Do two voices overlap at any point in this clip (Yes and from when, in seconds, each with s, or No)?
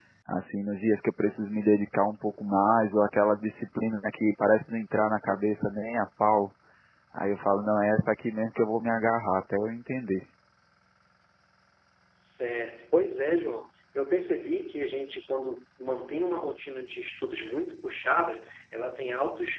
No